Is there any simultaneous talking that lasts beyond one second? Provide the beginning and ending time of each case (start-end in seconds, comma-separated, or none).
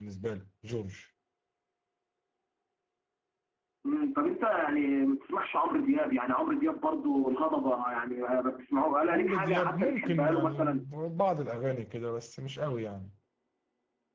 9.1-10.8